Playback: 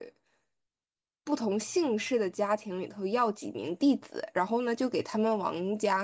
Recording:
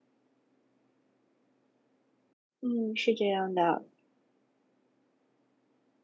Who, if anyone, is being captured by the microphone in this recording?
user only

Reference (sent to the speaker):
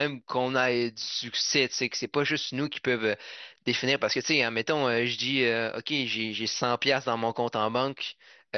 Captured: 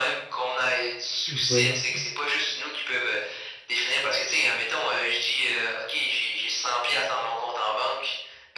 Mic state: both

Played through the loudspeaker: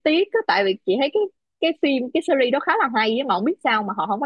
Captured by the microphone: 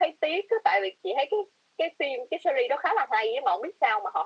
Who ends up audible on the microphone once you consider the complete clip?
echo only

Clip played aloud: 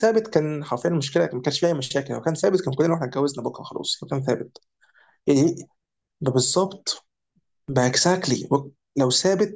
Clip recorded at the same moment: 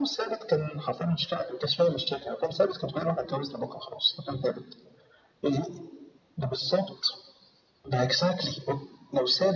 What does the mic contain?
echo only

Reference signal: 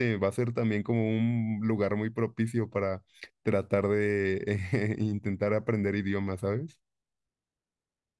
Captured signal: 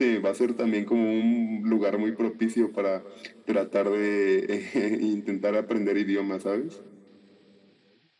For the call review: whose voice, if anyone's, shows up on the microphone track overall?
echo only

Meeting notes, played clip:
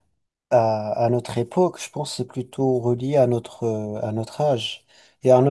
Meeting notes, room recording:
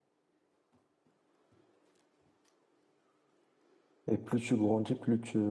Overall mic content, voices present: user only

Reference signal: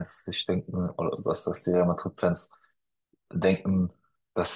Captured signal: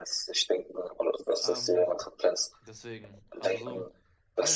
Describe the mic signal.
both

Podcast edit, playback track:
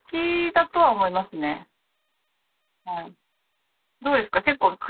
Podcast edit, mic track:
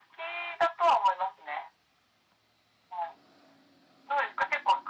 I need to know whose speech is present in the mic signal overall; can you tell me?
echo only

